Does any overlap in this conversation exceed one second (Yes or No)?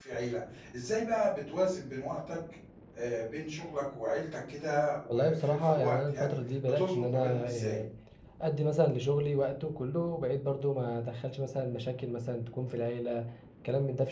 Yes